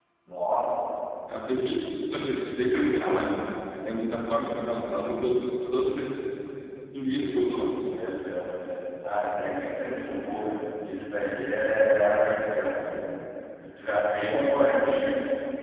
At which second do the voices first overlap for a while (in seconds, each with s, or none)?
none